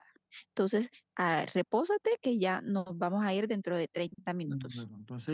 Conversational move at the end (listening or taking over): taking over